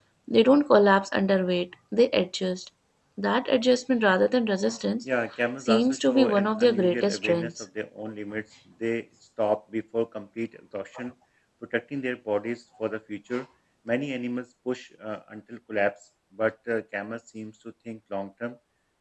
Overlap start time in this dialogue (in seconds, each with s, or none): 5.6 s